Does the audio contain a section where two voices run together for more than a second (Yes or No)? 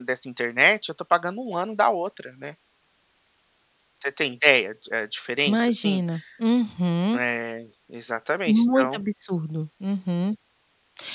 No